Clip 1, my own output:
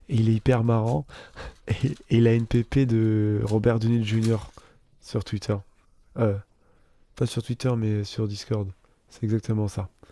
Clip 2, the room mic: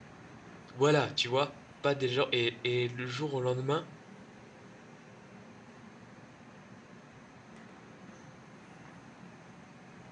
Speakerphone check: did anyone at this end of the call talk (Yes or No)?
Yes